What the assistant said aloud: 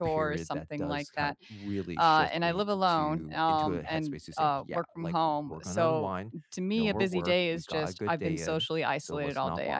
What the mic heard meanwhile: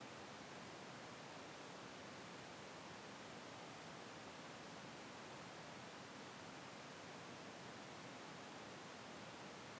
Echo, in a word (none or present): none